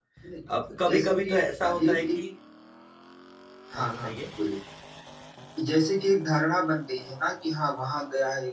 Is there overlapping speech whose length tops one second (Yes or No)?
Yes